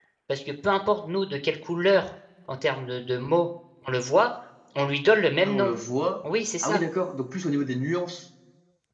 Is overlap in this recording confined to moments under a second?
Yes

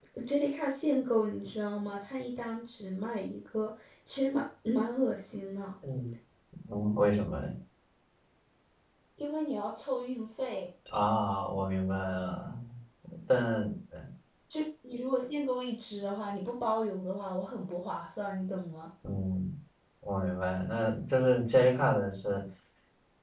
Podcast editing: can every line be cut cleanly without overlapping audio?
Yes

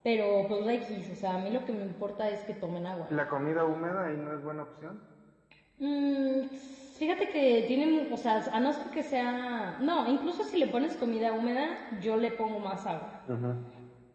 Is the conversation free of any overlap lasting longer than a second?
Yes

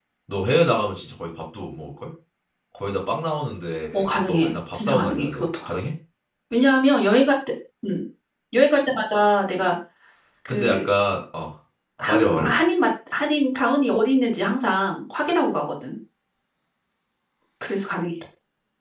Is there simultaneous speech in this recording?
Yes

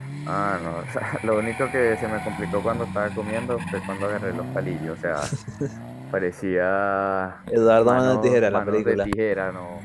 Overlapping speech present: Yes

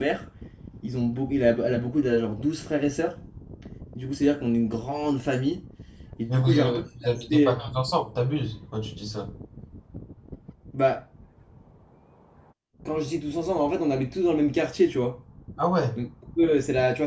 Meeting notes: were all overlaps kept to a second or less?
No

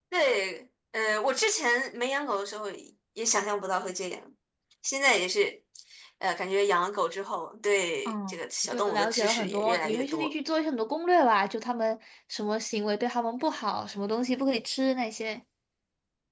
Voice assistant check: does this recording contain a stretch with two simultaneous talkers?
Yes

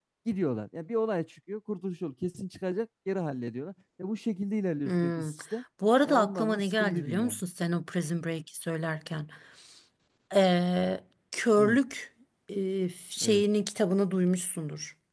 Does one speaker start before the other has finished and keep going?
Yes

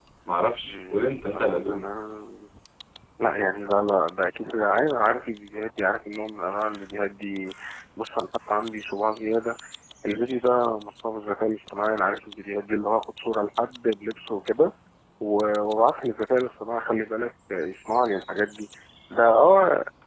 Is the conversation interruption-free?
No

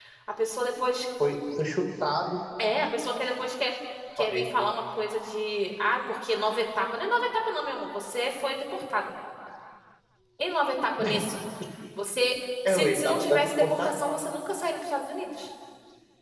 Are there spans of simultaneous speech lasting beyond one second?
Yes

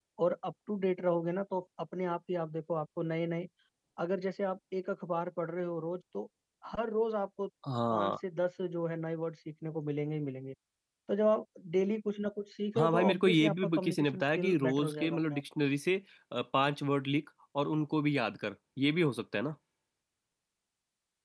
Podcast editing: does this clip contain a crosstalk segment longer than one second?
Yes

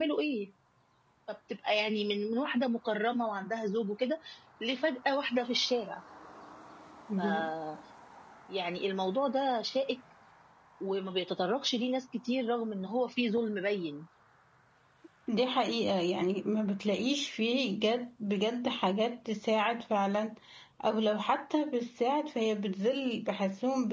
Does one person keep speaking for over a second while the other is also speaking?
No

